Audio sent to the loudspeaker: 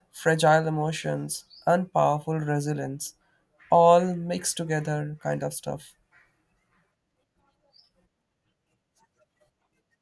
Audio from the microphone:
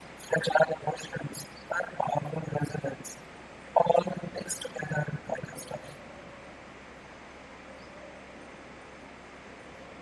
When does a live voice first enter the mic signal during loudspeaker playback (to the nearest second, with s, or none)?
none